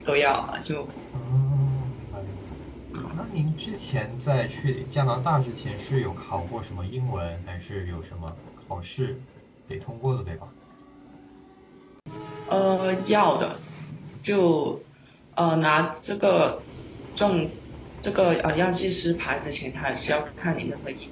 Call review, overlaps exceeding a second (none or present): none